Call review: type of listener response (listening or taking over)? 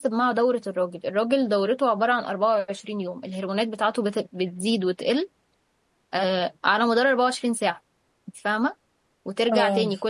listening